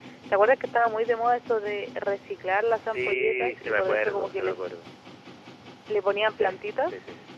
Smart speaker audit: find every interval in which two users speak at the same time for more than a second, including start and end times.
2.9-4.7

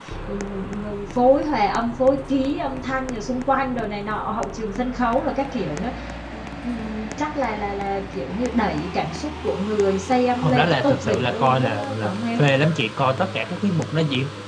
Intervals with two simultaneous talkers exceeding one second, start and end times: 10.4-12.4

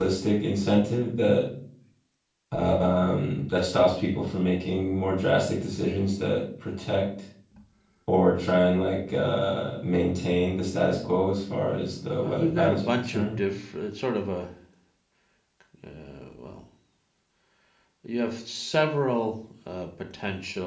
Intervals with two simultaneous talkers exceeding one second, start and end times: 12.2-13.4

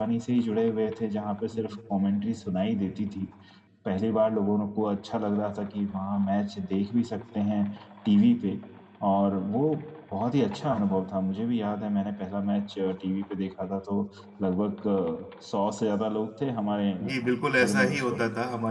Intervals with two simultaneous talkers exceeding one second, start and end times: 17.0-18.2

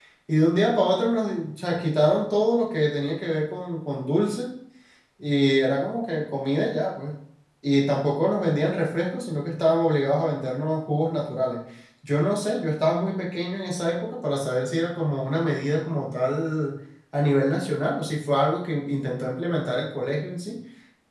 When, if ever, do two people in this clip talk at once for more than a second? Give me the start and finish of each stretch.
none

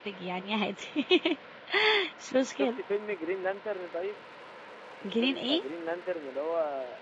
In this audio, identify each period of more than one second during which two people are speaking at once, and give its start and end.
none

